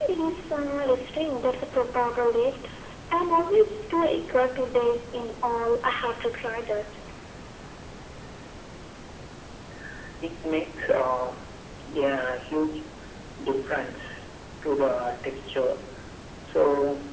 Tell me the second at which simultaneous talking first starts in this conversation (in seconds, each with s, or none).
none